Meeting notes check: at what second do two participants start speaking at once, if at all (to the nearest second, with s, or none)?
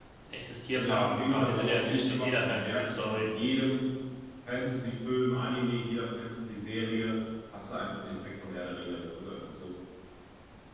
1 s